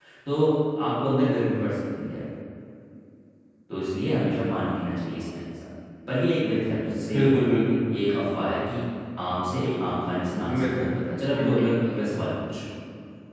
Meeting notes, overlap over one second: none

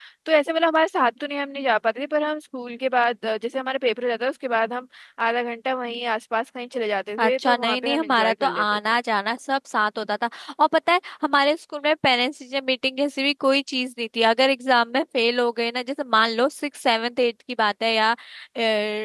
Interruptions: present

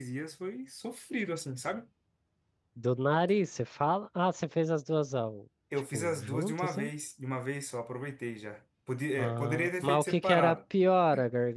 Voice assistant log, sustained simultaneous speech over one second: present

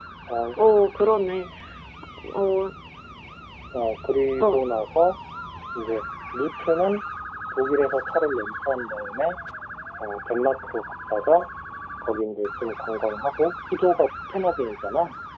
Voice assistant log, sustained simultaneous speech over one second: none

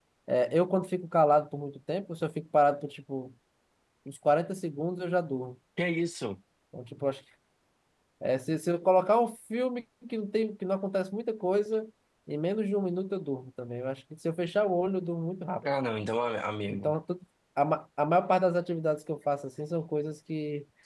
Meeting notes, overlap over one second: none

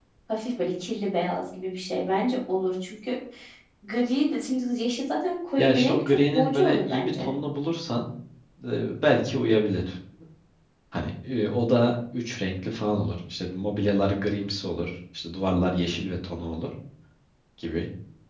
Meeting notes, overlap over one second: present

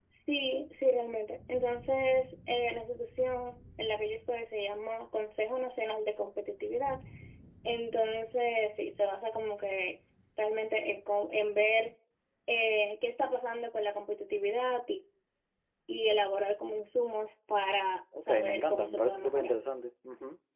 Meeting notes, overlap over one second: present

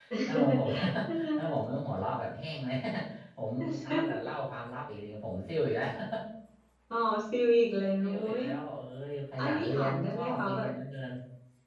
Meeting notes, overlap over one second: present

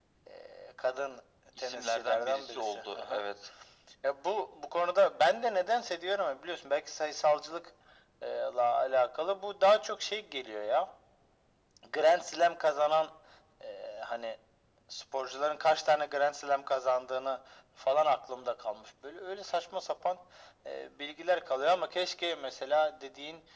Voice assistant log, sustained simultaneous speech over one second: present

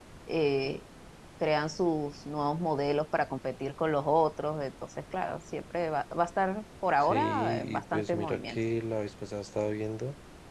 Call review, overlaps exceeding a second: present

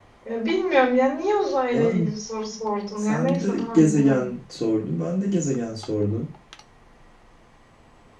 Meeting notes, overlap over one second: present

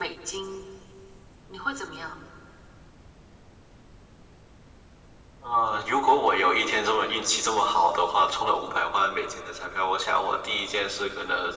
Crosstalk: none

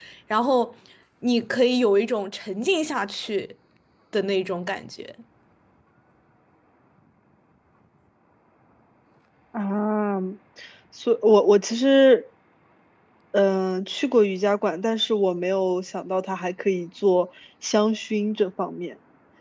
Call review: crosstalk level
none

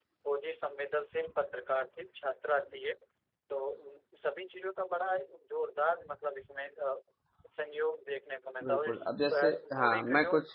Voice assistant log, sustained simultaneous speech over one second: present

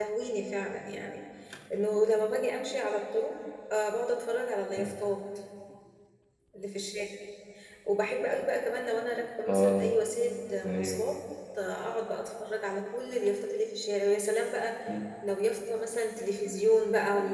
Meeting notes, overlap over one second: none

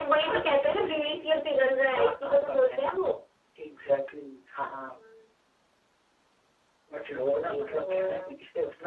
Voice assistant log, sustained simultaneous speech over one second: present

